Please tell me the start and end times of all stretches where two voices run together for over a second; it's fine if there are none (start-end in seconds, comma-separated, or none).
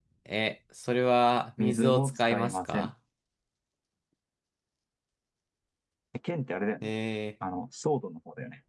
1.6-2.9